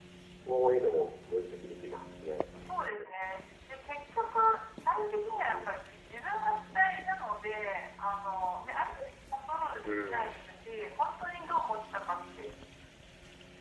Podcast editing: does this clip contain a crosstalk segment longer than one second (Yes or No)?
No